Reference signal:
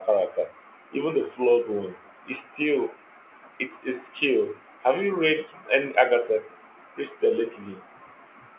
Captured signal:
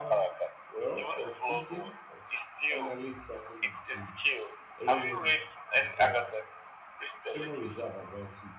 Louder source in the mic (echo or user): echo